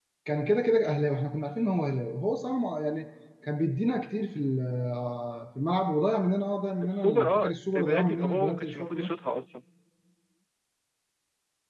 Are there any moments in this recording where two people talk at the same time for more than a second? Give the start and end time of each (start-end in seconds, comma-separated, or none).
6.8-9.1